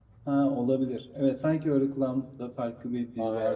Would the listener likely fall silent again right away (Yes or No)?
No